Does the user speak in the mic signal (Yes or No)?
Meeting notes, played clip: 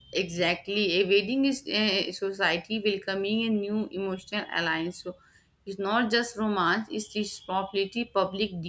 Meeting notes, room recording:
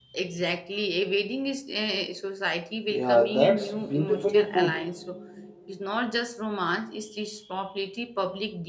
Yes